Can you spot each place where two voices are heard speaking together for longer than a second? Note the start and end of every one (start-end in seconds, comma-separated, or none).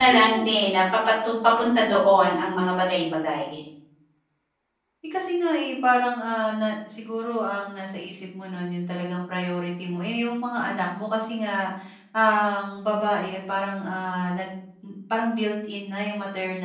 none